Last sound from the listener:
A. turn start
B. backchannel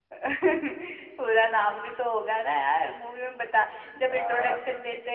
B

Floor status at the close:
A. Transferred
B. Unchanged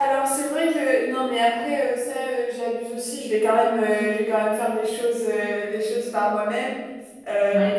B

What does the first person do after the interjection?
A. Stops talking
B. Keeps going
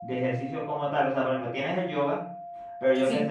B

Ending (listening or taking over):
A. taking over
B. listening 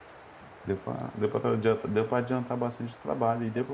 B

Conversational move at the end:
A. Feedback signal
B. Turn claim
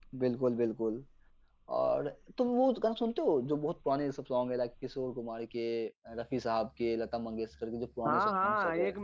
B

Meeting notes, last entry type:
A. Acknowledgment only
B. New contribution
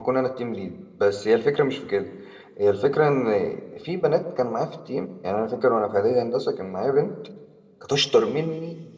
A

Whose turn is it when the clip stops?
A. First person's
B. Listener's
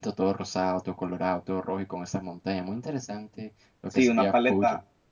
B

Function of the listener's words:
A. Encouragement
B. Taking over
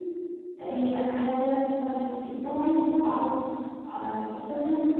A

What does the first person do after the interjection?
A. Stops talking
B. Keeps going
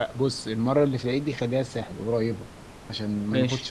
B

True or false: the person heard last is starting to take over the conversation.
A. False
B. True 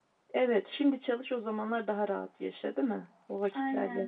B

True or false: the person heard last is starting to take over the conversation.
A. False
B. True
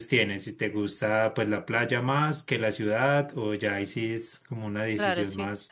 B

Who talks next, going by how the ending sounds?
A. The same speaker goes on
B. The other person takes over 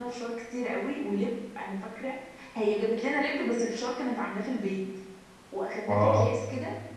A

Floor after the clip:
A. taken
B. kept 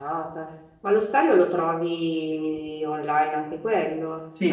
A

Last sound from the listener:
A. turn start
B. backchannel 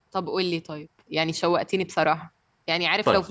B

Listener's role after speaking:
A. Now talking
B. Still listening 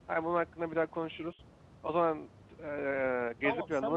A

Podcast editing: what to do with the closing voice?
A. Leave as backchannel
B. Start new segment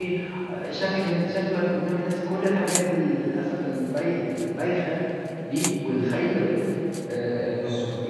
A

